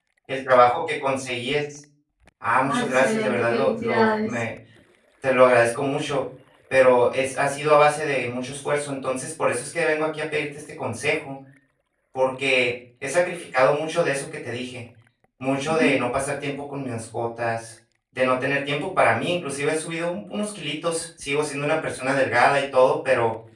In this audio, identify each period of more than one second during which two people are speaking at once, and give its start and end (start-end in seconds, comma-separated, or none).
2.6-4.4